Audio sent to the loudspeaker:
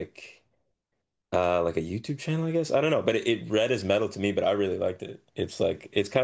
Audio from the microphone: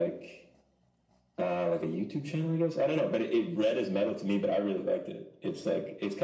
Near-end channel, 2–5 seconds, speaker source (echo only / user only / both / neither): echo only